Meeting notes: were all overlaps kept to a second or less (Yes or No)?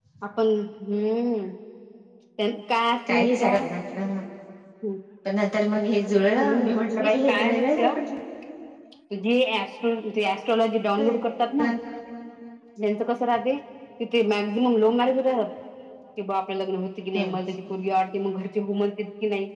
No